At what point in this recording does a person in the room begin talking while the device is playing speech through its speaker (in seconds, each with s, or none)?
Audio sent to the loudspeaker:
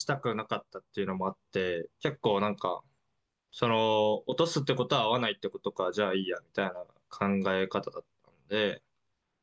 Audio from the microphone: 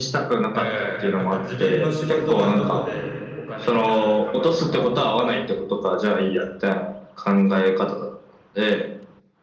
0.5 s